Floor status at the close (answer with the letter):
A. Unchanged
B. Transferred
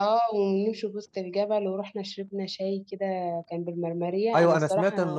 B